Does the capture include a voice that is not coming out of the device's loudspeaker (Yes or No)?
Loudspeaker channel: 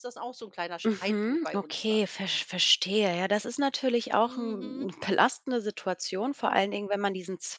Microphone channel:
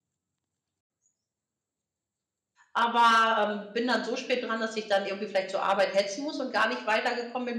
Yes